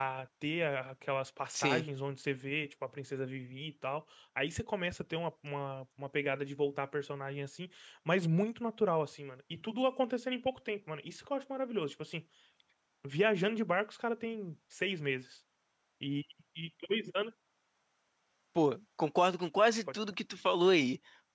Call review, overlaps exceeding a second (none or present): none